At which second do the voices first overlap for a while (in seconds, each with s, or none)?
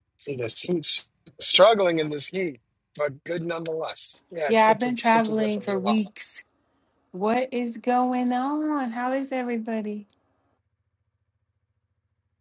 4.5 s